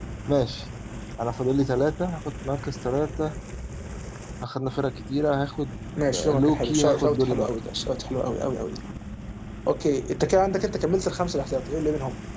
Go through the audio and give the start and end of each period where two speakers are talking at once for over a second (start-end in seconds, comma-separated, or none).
6.1-7.5